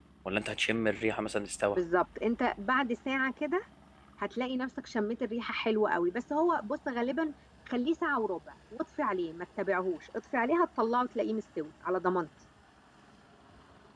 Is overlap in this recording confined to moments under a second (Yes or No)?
Yes